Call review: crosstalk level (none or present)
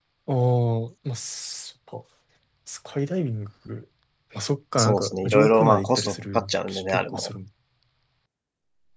present